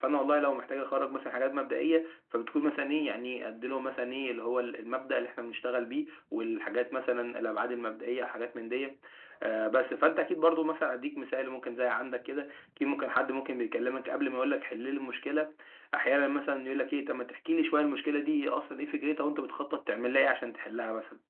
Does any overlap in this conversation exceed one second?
No

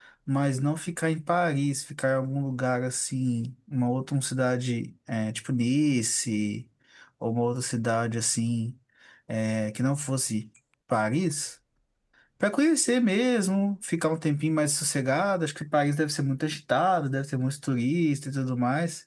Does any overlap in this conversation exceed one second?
No

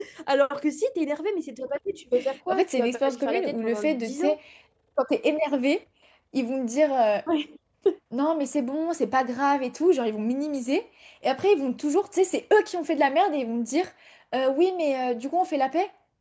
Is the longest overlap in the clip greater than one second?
Yes, from 2.5 s

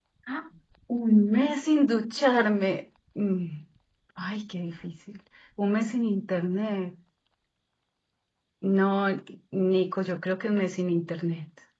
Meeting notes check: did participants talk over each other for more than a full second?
No

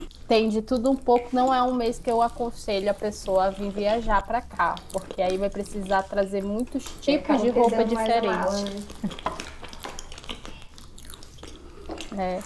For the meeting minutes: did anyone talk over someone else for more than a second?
Yes, from 7.1 s

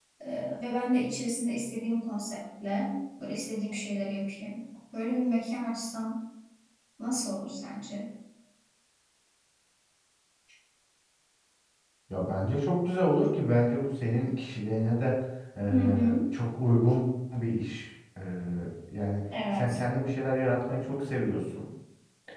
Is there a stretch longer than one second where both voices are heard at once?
No

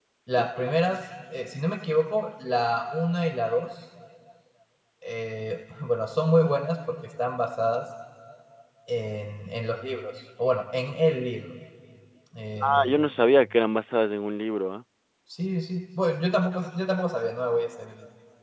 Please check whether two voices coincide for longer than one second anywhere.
No

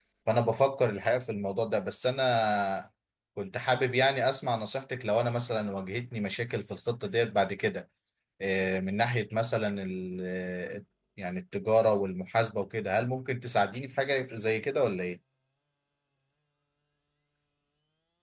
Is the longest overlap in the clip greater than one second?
No

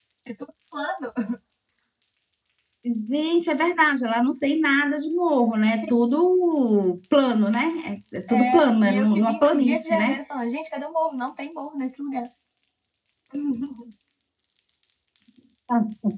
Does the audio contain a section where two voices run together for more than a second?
Yes, from 8.3 s

